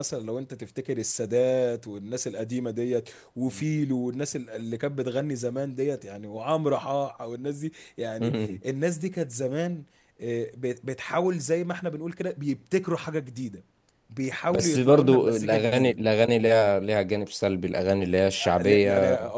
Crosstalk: present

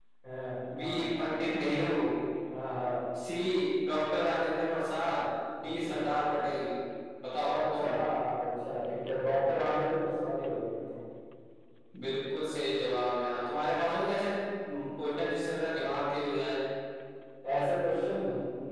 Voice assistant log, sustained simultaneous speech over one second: none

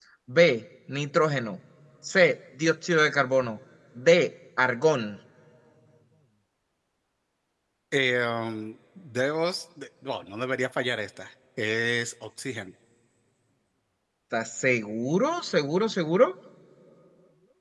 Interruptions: none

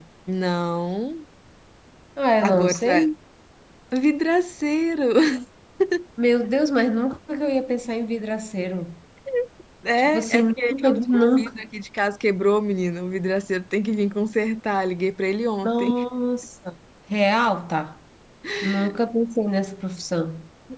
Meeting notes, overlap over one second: present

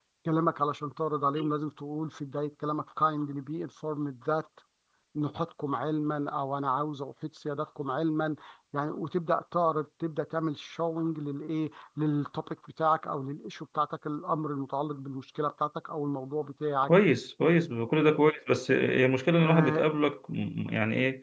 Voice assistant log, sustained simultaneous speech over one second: none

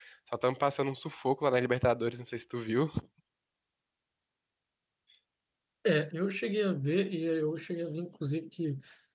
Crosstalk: none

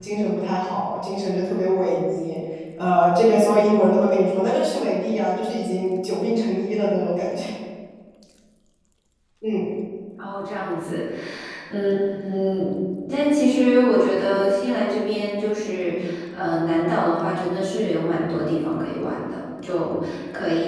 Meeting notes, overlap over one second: none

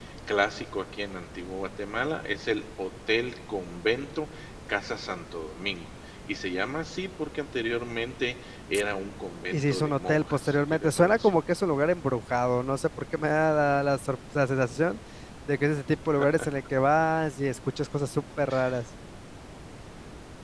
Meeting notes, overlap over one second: present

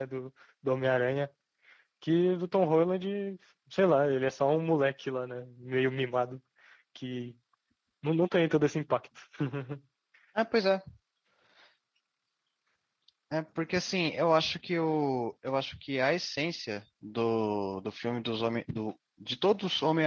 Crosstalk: none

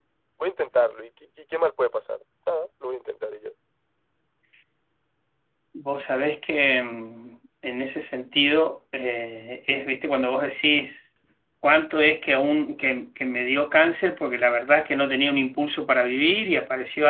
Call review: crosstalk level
none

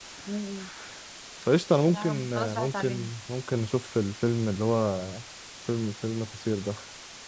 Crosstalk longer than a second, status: present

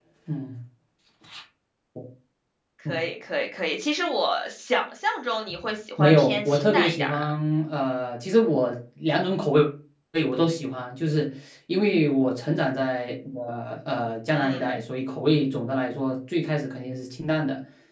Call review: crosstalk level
present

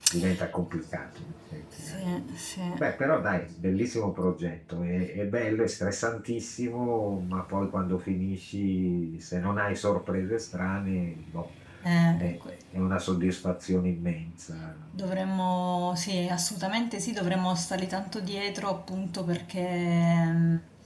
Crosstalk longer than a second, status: none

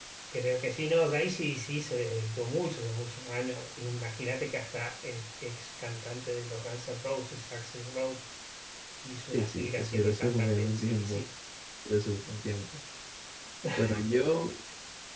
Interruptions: present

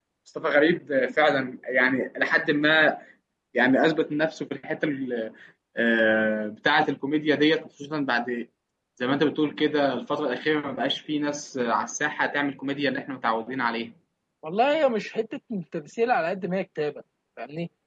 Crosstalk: none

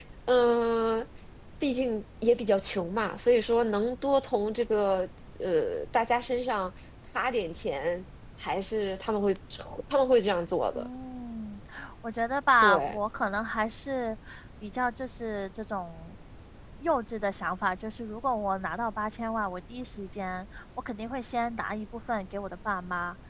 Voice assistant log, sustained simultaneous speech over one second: none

